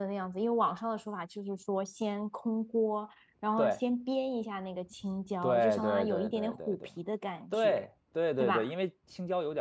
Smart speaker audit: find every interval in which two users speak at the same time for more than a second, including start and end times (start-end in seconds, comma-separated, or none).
5.4-6.7